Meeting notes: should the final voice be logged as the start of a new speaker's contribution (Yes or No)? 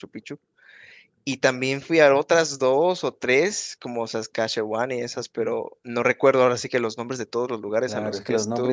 Yes